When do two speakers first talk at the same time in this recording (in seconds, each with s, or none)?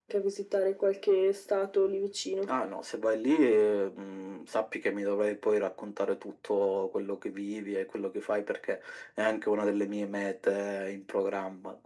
none